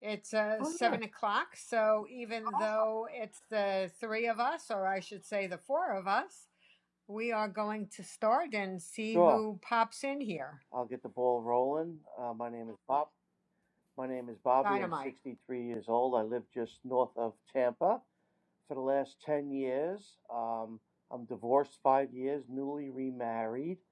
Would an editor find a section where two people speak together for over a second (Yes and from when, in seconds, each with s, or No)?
No